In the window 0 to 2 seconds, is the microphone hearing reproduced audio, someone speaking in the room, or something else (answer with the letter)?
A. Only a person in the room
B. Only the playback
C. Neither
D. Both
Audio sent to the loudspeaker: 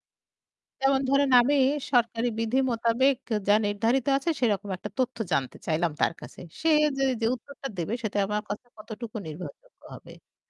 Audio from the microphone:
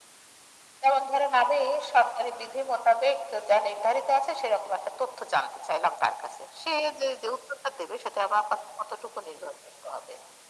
B